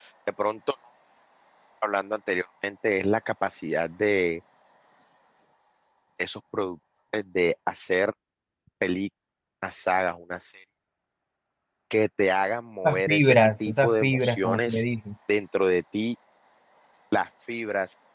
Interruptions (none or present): present